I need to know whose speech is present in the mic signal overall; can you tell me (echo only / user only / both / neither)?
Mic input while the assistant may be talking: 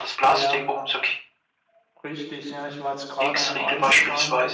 both